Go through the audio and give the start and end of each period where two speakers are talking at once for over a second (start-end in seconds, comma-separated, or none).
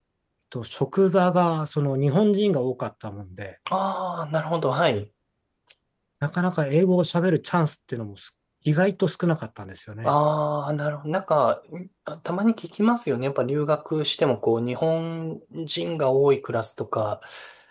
none